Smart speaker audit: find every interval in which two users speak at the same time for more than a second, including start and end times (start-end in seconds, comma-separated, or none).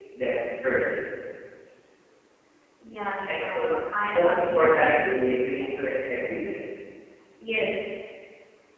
4.0-5.6